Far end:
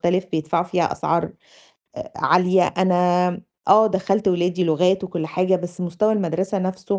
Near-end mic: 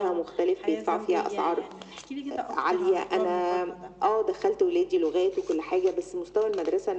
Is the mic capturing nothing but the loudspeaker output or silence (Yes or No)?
No